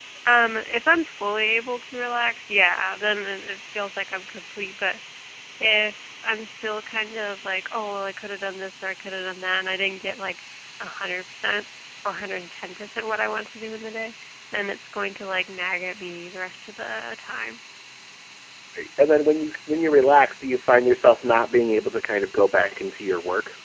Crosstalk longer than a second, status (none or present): none